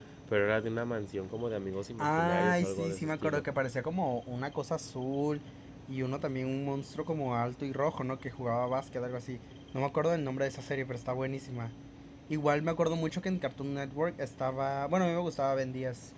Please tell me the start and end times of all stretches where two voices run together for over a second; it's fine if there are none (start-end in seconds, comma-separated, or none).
2.0-3.4